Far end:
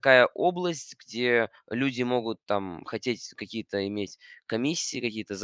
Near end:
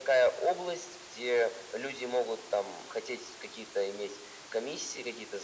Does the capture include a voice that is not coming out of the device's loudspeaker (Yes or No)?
No